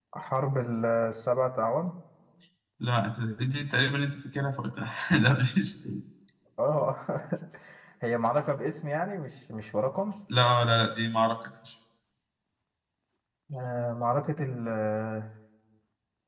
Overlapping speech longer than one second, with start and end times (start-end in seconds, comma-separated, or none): none